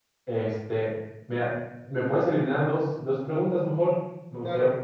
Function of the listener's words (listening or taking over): taking over